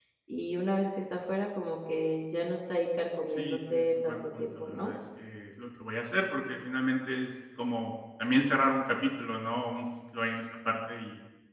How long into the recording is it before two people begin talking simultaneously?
3.3 s

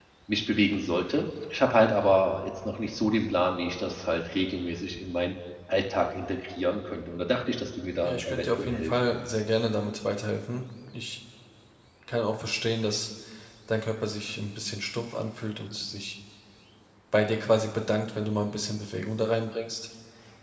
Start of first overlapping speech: 8.0 s

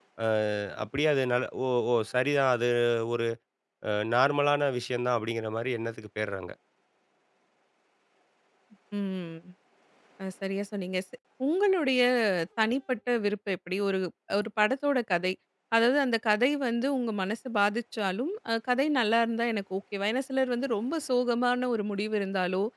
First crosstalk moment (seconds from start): none

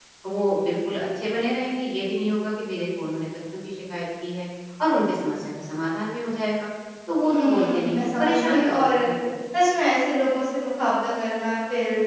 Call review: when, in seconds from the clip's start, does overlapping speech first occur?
7.2 s

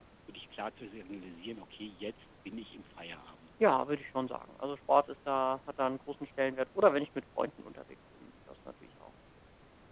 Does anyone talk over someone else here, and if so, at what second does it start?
none

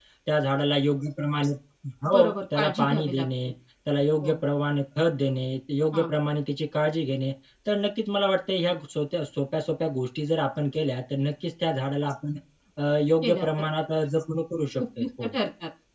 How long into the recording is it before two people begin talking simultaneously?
2.1 s

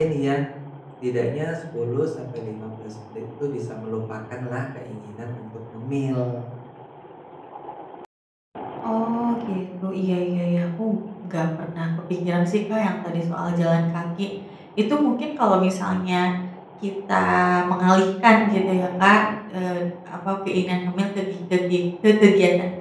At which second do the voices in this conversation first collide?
none

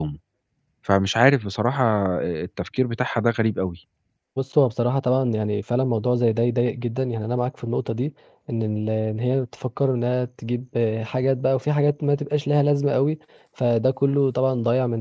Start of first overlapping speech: none

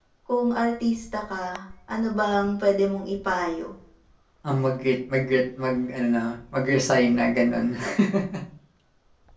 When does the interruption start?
none

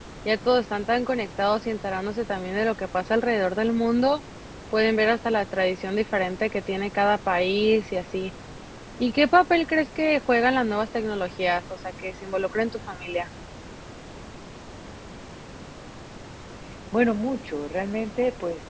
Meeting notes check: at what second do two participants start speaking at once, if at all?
none

